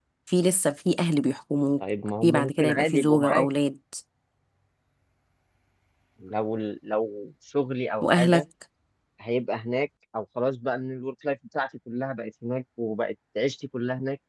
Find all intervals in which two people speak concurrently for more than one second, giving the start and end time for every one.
2.2-3.5

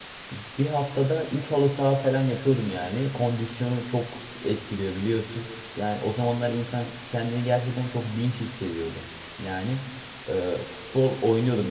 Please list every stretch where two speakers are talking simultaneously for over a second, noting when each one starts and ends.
none

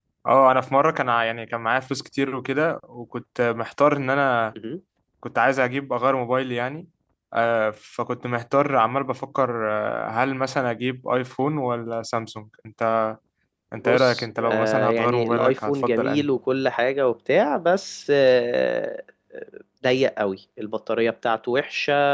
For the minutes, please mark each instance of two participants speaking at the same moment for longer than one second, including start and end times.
13.8-16.3

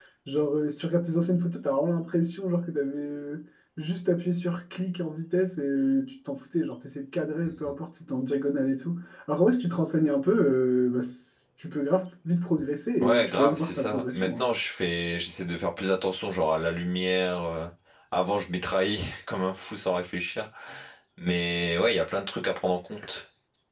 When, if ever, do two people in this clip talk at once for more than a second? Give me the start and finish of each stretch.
13.0-14.4

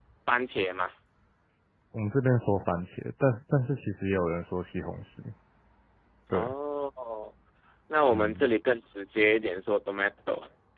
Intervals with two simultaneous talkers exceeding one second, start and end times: none

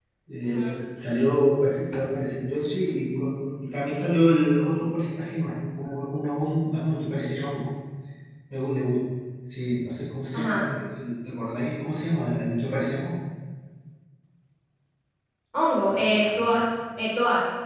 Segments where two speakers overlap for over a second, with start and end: none

